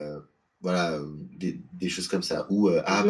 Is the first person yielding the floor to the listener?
No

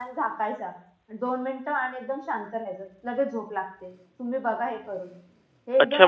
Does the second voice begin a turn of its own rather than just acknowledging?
Yes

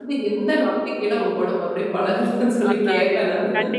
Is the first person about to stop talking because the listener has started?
Yes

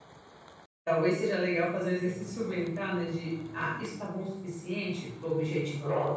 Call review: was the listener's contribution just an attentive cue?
No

